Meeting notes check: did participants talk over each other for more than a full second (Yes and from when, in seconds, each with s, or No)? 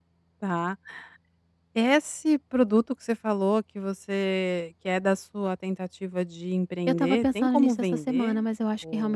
Yes, from 6.9 s